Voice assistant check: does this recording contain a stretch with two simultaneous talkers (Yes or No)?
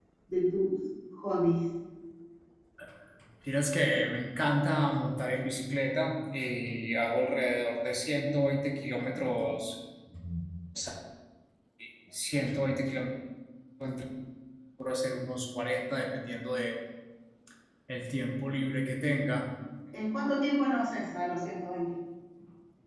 No